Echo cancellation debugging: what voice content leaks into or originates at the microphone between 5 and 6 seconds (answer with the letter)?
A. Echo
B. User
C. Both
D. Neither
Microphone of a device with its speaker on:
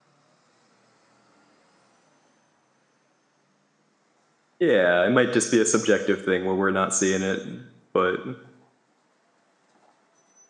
B